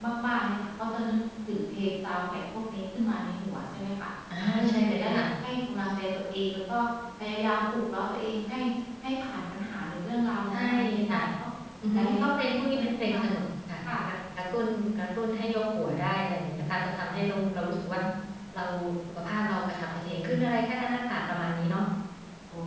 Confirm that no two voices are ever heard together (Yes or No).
No